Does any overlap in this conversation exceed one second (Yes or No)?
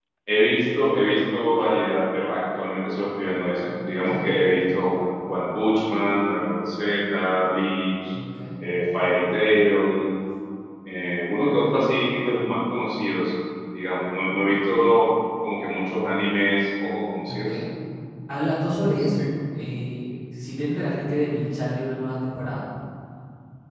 No